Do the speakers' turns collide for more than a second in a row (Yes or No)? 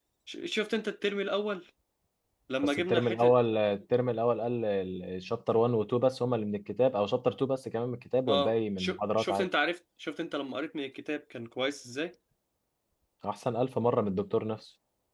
Yes